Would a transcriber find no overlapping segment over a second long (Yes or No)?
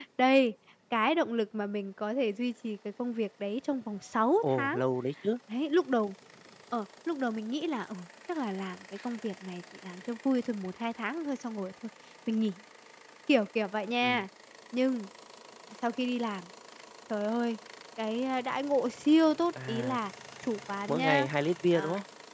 Yes